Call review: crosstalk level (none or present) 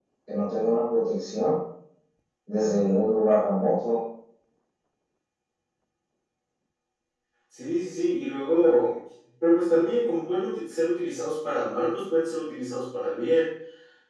none